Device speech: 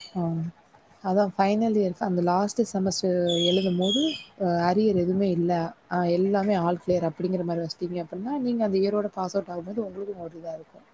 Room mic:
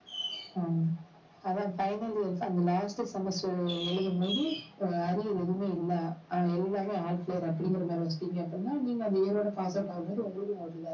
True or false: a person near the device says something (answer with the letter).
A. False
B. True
A